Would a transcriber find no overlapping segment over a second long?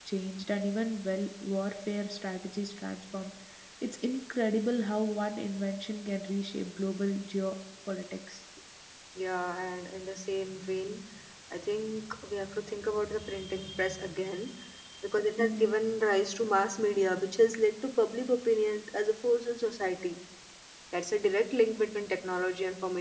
Yes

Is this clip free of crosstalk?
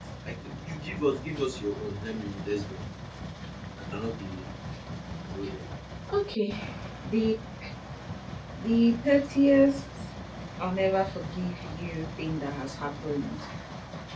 Yes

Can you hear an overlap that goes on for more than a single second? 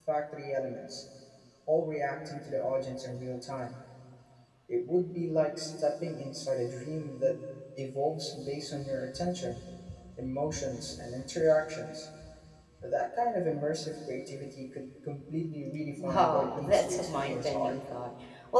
Yes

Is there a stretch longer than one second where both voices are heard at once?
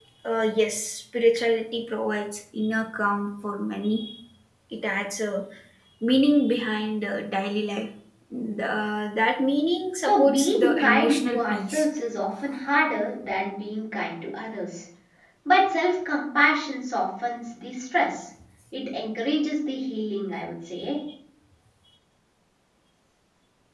Yes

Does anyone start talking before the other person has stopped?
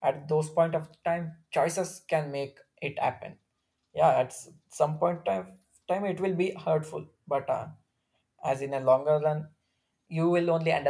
No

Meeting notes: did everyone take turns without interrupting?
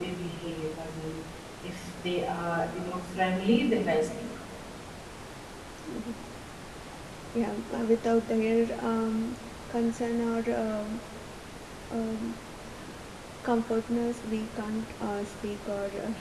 Yes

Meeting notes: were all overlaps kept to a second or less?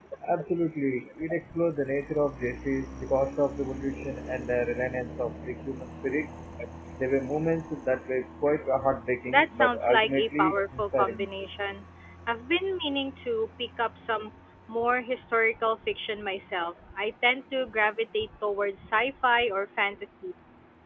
No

